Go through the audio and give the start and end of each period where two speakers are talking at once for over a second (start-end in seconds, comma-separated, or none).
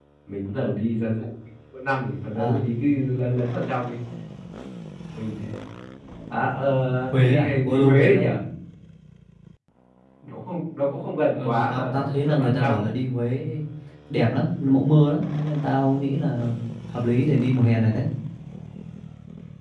7.1-8.3, 11.3-12.9